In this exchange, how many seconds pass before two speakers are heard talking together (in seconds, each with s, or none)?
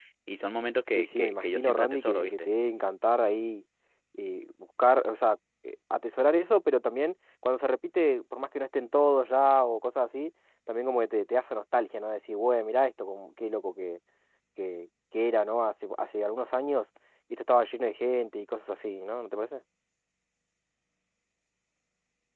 0.9 s